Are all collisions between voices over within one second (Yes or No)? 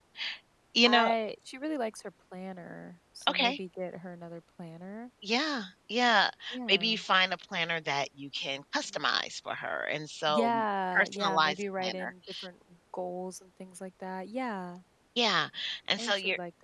No